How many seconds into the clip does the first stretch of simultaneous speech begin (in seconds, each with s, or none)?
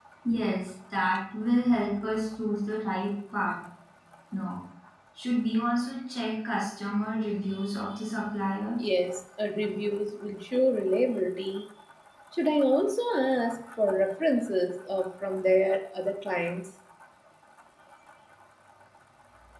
none